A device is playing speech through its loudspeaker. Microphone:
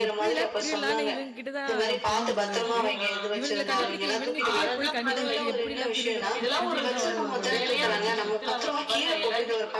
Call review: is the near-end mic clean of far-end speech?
No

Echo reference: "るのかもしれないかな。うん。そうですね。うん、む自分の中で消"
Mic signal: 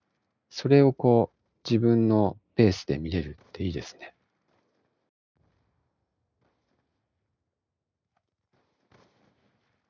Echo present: No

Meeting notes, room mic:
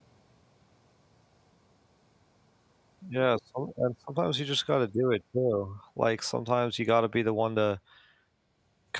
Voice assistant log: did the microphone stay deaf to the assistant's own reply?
Yes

